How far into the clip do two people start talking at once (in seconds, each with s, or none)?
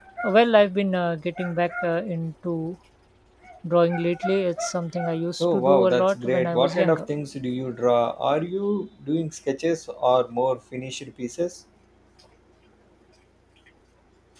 5.4 s